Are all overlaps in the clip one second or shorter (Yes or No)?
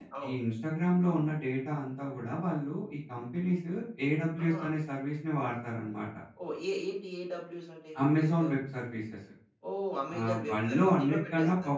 No